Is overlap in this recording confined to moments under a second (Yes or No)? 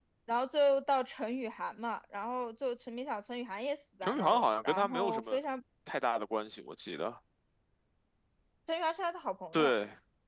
No